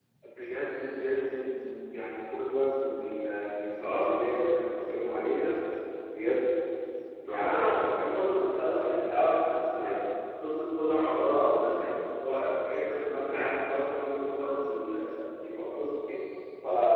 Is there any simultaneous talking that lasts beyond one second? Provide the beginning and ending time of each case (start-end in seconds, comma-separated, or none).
7.3-10.0